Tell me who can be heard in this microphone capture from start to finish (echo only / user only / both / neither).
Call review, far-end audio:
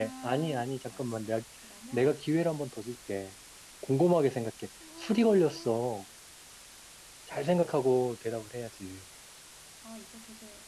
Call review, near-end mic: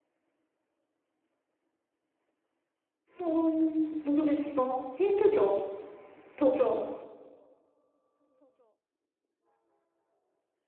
user only